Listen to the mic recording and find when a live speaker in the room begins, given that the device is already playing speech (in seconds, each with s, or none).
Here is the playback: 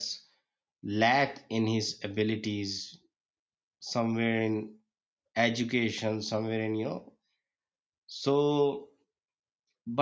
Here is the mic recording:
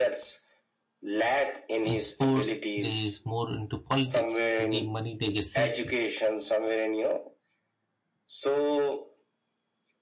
1.8 s